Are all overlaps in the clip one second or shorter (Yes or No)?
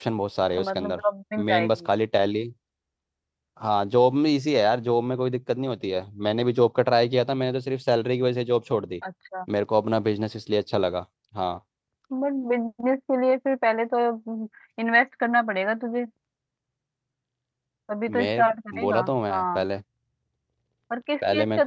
No